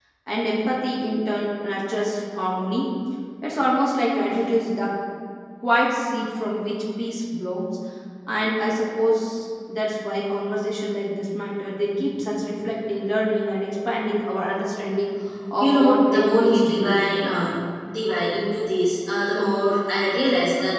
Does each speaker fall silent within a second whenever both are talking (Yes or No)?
No